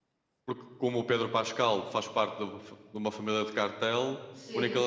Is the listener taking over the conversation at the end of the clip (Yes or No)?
No